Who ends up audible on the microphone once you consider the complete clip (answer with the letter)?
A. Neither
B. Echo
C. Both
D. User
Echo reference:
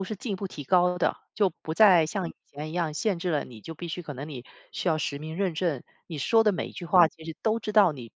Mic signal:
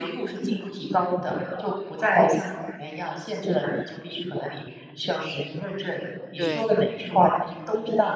C